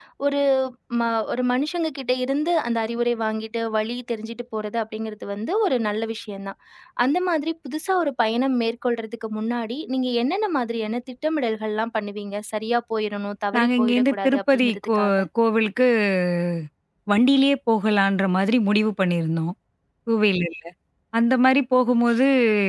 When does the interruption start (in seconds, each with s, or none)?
13.5 s